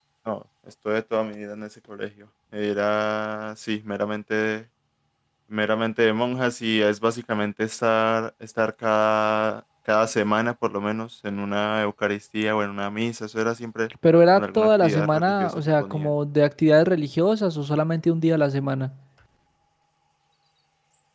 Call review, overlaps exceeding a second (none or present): present